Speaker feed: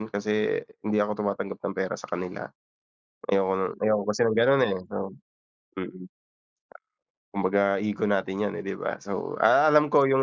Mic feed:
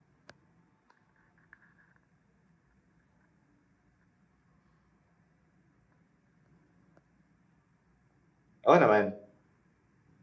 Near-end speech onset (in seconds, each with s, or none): 8.7 s